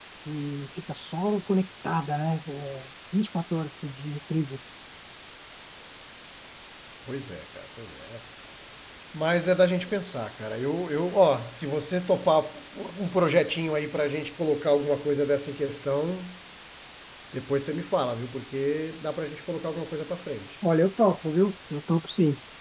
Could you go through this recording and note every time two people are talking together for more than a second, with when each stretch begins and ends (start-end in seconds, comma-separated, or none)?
none